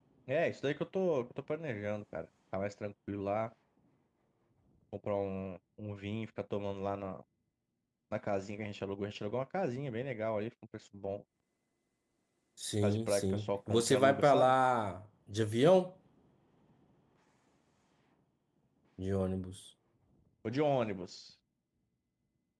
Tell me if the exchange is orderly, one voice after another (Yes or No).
No